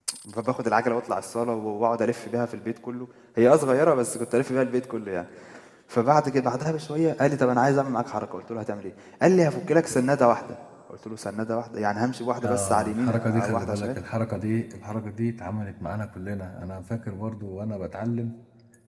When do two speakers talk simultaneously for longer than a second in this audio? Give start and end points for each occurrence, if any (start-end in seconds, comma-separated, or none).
12.4-14.0